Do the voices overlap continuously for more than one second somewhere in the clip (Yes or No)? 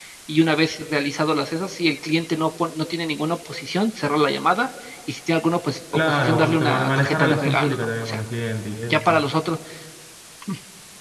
Yes